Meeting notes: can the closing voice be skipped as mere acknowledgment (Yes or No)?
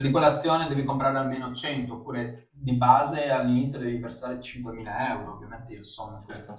Yes